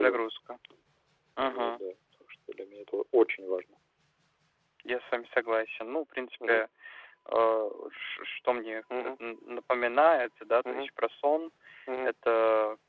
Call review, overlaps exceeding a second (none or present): none